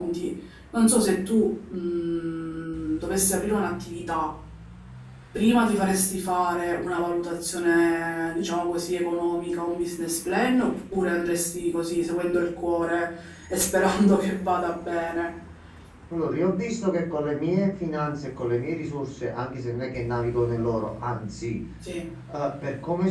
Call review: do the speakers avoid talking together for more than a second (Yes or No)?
Yes